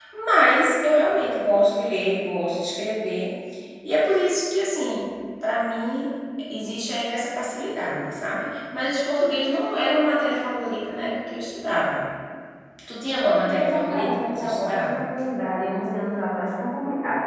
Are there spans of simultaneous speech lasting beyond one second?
Yes, from 13.2 s

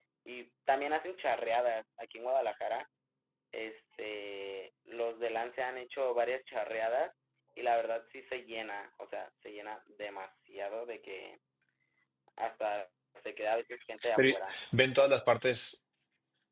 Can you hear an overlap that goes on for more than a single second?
No

